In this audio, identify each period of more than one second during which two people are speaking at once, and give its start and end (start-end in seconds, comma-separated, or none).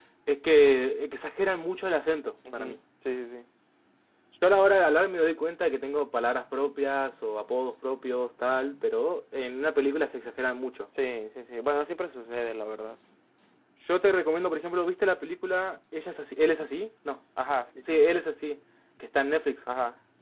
none